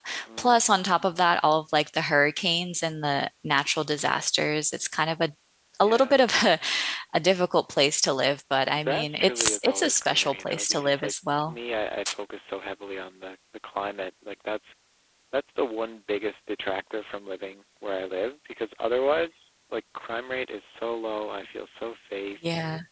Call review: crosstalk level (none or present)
present